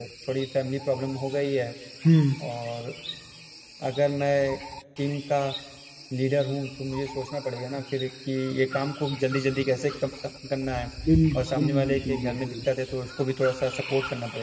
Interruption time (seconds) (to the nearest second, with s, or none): 11 s